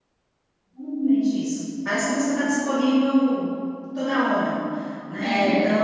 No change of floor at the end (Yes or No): Yes